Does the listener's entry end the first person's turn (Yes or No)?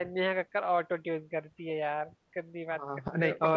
Yes